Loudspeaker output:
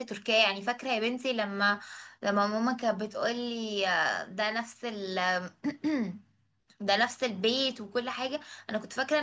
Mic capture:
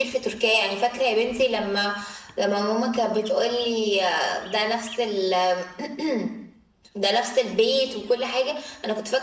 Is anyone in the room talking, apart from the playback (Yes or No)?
No